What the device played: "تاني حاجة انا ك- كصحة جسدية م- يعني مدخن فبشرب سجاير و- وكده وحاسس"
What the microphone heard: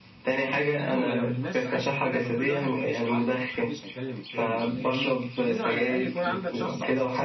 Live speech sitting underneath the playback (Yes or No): Yes